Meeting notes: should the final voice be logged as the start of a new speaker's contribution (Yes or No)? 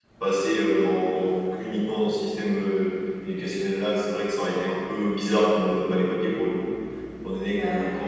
No